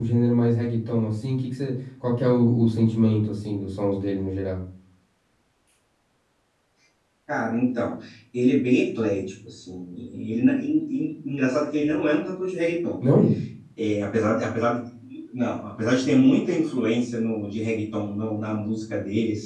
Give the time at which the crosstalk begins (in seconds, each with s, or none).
none